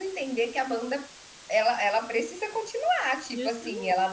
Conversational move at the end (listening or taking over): listening